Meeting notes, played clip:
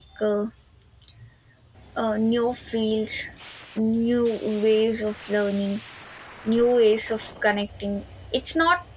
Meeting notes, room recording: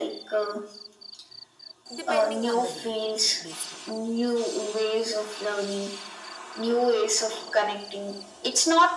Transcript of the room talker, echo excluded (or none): depending on the day, basically.